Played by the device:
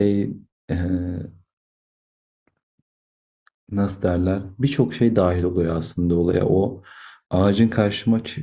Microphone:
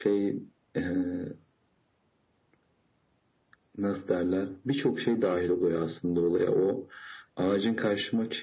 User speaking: No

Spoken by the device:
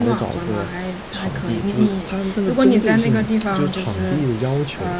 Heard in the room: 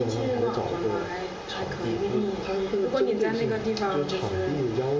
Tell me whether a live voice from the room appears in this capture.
No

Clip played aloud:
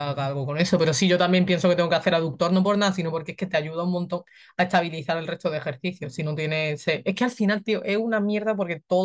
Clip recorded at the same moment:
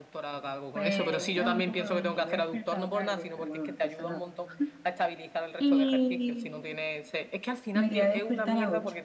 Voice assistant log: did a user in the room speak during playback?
Yes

